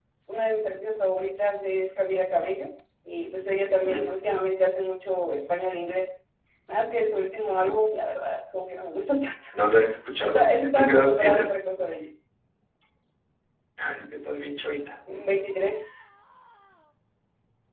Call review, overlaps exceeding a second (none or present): present